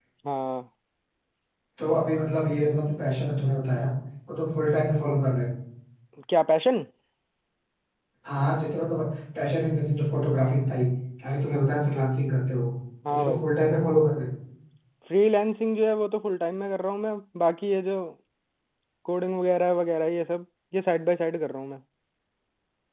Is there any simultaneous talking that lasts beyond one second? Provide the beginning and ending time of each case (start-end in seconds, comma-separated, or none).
none